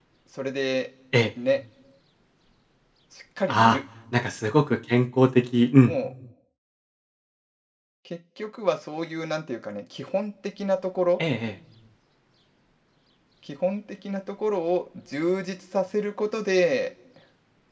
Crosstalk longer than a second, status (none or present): none